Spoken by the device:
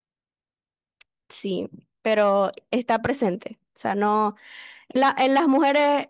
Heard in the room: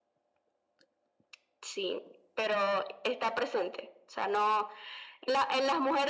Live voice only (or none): none